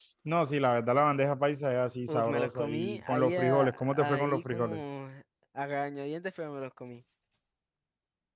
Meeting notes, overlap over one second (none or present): present